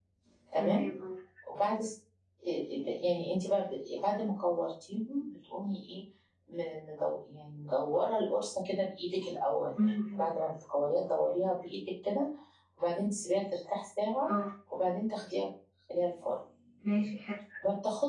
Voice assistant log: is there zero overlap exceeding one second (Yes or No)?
Yes